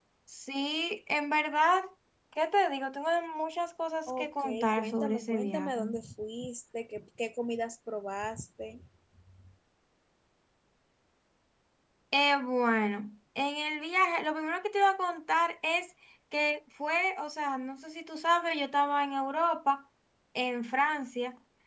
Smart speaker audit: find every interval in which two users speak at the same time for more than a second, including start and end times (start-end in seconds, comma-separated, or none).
4.1-5.8